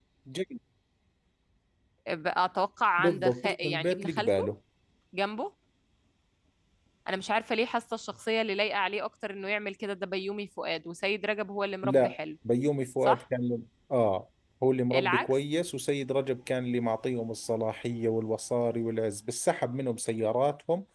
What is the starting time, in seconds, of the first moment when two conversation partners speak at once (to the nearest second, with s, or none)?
3 s